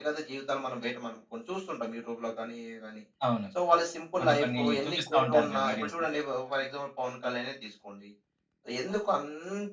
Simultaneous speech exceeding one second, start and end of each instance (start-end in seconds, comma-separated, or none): 4.2-5.9